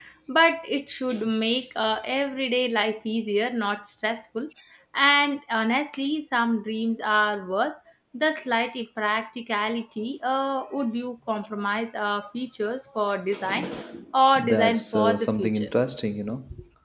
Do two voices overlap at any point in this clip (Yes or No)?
Yes